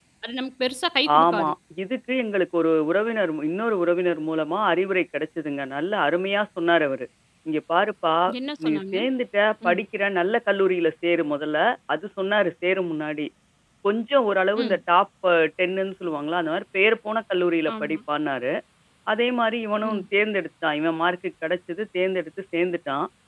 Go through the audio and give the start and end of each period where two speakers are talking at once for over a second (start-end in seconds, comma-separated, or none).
none